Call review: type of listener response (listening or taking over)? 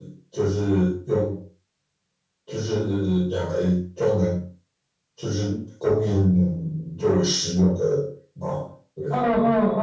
taking over